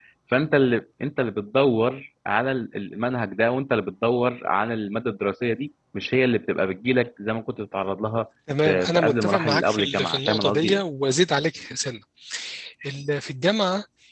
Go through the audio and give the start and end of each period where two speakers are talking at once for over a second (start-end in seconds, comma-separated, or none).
8.6-10.8